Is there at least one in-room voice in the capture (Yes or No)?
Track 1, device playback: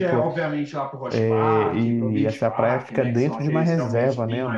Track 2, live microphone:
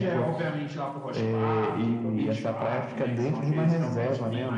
No